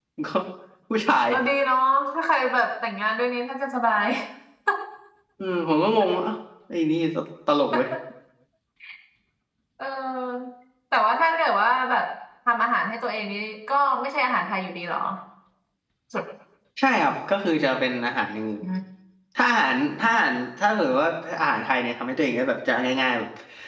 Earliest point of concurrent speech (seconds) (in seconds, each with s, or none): none